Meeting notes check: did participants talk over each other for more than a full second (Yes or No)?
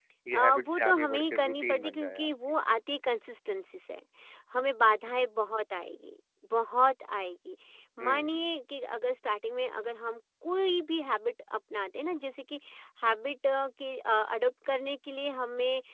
Yes